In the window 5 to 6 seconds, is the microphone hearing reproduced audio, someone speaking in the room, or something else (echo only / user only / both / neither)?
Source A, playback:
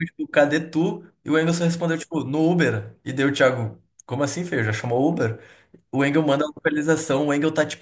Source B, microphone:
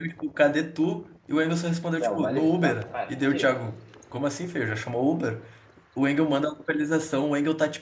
echo only